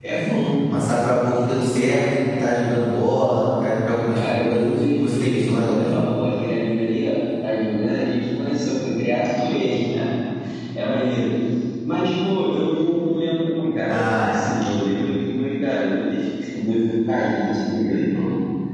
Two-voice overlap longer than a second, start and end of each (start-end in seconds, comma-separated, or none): 4.1-6.0